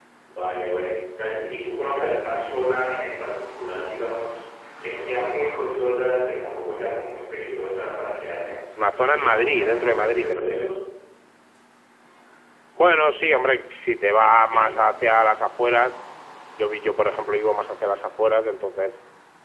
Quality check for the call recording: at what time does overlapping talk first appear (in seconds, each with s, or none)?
9.0 s